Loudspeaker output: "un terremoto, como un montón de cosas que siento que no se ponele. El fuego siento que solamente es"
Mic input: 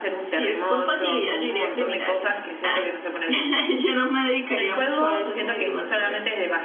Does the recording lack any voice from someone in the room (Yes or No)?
No